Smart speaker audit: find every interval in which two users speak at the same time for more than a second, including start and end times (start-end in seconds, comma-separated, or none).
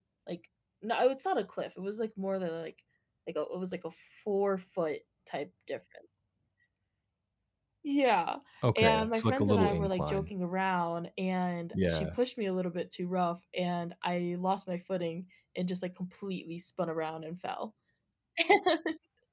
8.8-10.3